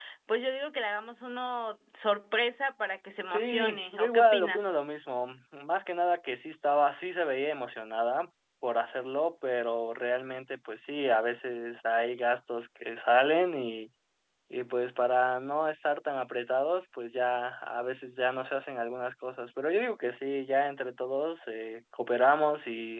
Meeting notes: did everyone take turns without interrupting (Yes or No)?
No